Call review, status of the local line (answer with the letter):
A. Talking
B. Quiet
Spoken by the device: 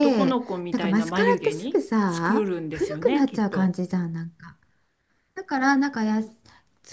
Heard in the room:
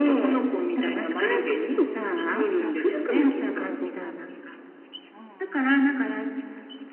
A